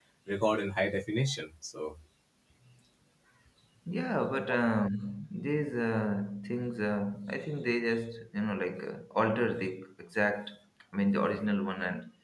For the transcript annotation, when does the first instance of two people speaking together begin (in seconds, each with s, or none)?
none